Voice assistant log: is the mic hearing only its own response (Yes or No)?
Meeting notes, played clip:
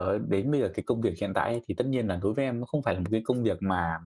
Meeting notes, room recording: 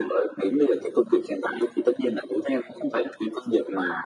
Yes